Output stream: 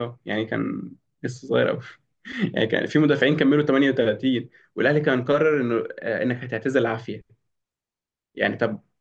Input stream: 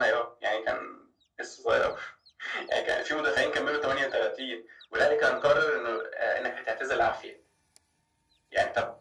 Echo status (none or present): present